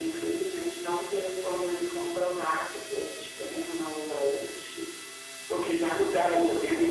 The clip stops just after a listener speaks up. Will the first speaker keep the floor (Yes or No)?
No